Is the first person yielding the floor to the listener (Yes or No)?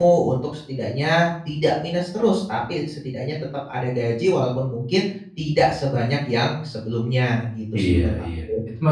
Yes